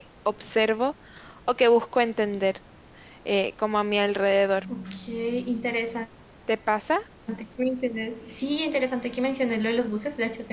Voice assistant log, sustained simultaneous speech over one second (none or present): none